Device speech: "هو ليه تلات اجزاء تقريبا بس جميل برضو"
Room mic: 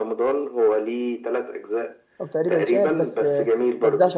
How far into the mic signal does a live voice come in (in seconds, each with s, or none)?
2.2 s